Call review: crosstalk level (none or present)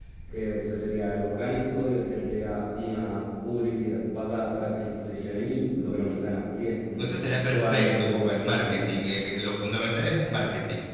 present